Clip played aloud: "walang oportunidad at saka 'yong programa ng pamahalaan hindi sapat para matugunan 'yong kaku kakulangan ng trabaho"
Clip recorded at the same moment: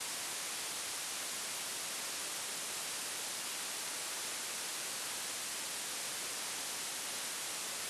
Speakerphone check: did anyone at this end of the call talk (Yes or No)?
No